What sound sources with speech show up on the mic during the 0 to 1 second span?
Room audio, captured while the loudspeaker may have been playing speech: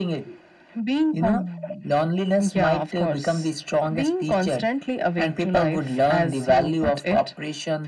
echo only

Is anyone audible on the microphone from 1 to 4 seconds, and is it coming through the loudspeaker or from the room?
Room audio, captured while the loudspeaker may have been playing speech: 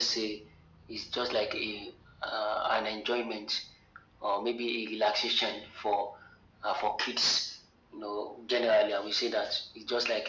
echo only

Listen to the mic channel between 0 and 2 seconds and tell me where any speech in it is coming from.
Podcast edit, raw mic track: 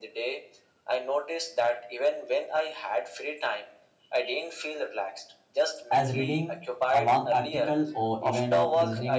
echo only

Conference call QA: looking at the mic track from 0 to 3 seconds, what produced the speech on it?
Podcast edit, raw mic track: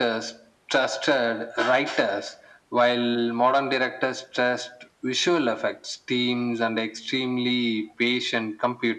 echo only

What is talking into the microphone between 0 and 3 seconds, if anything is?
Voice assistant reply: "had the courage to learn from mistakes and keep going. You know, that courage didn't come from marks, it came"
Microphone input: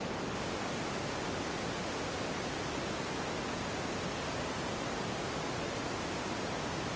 neither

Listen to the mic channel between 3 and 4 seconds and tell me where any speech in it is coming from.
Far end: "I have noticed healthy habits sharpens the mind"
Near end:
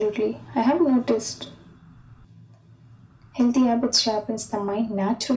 echo only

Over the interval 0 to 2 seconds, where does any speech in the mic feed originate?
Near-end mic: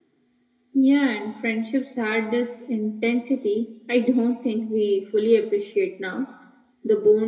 echo only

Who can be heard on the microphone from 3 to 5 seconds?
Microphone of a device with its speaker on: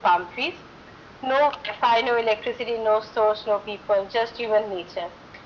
echo only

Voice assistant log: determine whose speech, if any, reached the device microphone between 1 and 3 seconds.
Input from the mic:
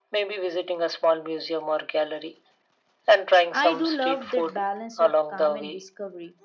echo only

